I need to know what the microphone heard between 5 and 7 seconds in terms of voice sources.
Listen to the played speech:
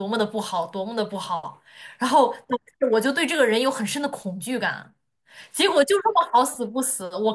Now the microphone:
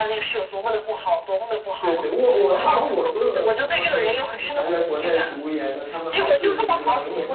both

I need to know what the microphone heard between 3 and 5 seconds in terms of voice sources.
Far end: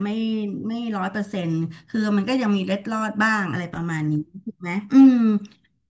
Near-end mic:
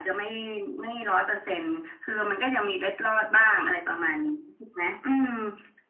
echo only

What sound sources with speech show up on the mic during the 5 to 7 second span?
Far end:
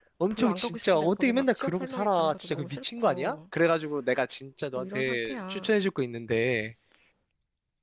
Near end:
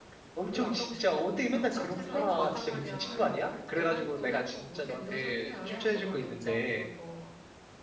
both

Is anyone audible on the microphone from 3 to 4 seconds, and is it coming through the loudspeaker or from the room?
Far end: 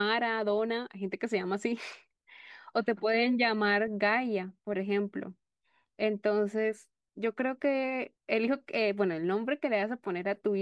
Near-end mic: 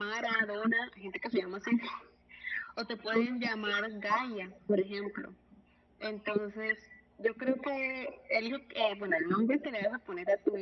echo only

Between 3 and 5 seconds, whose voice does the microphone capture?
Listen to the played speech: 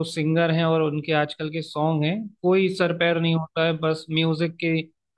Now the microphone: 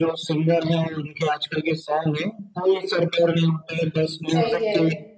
both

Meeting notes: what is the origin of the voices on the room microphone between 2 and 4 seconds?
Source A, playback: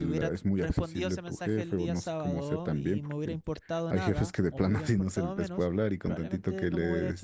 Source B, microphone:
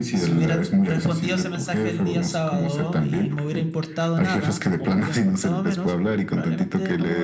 echo only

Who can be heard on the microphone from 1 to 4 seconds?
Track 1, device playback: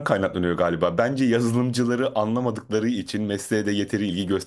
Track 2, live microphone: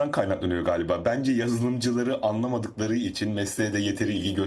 echo only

